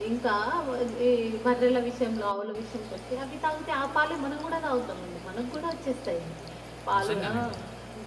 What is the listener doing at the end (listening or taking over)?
listening